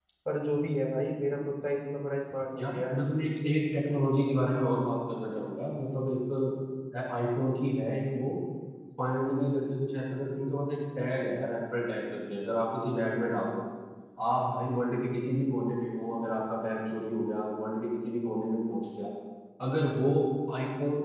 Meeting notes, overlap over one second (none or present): none